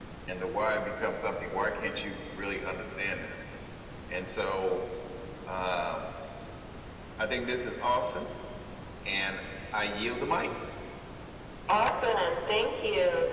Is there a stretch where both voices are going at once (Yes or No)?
No